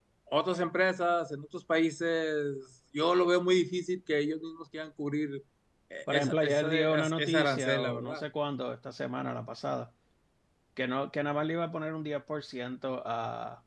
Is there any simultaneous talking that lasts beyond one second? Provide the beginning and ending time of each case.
6.1-8.2

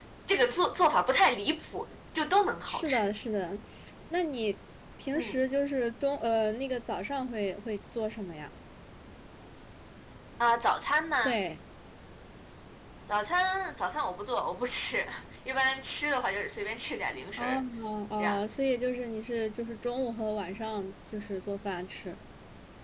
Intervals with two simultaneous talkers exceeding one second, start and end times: none

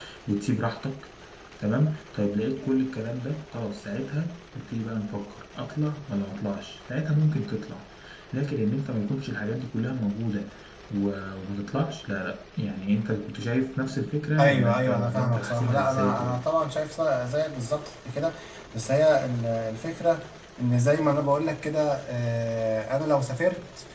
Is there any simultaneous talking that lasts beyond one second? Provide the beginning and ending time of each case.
14.4-16.4

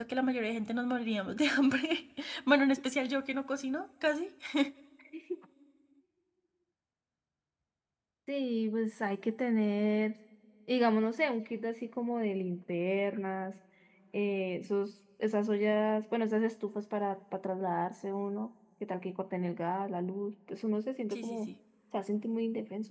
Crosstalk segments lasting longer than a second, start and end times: none

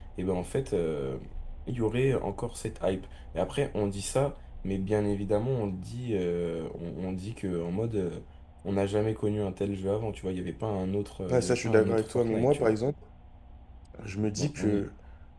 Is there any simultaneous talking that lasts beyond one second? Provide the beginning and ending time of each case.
11.3-12.7

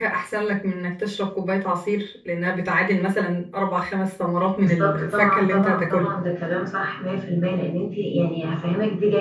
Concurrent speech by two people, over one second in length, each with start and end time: 4.6-6.1

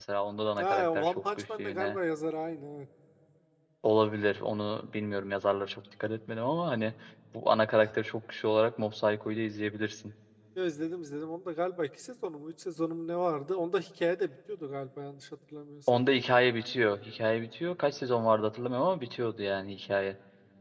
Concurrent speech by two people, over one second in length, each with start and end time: 0.6-2.0

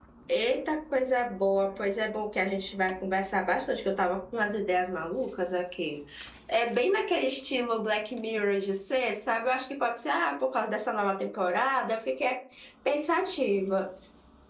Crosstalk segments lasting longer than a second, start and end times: none

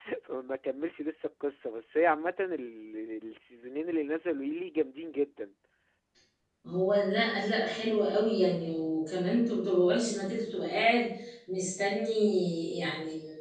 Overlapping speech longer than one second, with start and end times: none

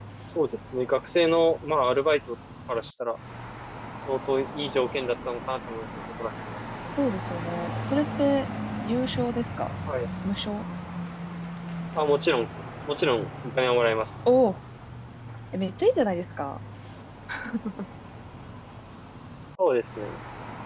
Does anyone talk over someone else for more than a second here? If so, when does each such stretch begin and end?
none

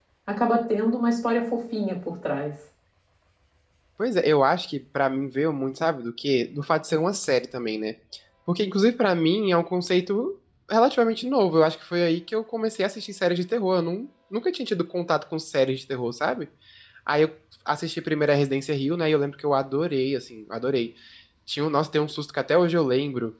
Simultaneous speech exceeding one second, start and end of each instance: none

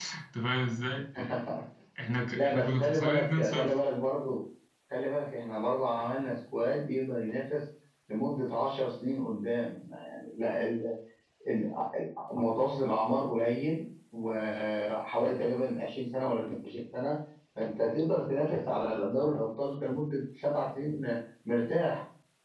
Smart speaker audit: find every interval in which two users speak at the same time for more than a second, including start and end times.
2.4-3.8

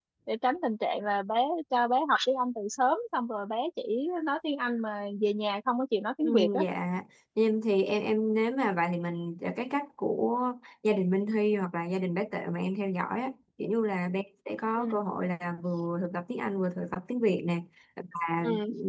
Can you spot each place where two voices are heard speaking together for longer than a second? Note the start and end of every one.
none

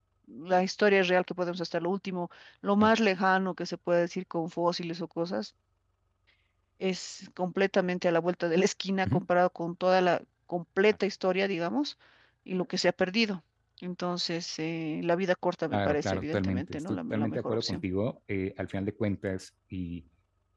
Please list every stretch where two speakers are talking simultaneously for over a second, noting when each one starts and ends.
15.7-17.8

